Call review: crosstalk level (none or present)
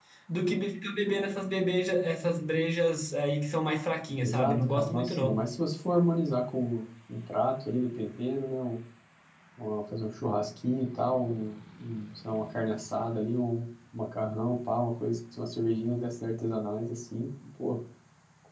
present